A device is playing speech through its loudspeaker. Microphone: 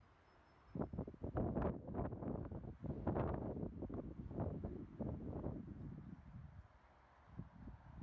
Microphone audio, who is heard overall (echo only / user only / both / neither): neither